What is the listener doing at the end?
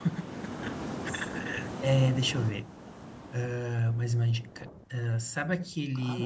listening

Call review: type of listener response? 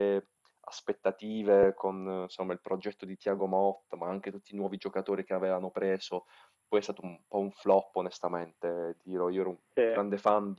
listening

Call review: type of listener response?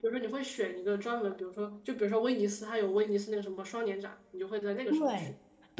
taking over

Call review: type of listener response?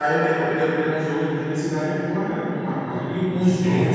listening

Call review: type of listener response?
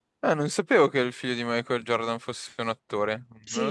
taking over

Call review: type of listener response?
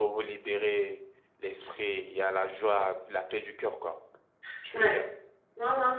taking over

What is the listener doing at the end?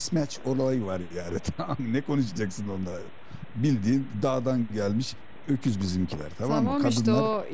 taking over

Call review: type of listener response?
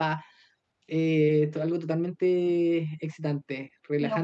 listening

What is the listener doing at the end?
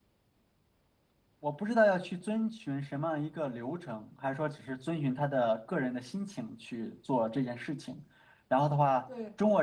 listening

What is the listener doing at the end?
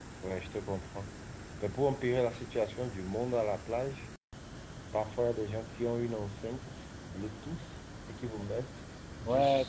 taking over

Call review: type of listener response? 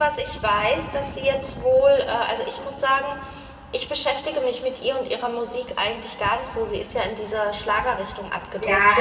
taking over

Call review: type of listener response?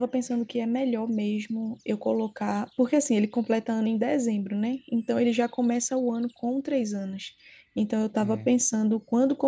listening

